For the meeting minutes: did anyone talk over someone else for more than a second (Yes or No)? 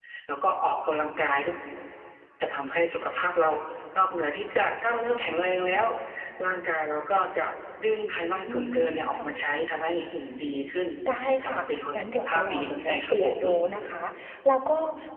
Yes